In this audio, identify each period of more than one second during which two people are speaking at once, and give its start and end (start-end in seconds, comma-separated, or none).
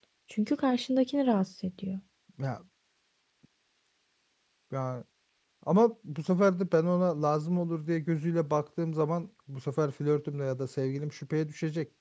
none